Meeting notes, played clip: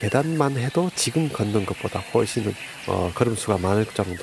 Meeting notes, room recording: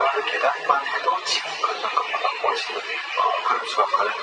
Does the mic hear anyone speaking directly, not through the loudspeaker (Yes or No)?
No